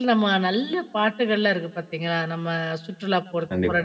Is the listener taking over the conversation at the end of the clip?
No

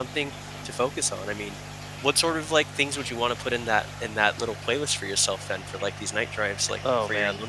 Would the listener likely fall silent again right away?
No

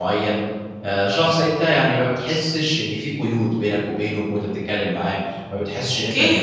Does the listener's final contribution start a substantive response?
Yes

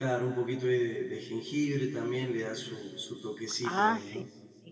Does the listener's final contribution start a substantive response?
Yes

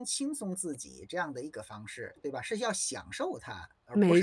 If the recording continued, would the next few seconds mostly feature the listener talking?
Yes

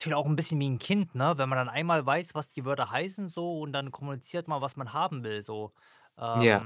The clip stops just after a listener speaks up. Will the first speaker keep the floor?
Yes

